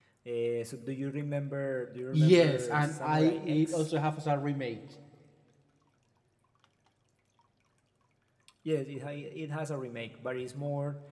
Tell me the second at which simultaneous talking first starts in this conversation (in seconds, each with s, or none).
2.1 s